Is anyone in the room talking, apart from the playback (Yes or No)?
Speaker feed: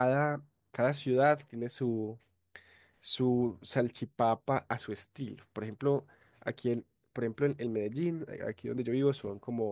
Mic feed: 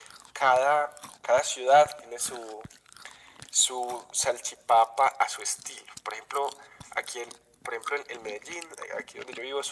No